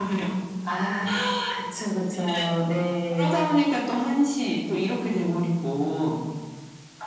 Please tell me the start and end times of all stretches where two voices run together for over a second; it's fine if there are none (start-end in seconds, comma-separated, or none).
none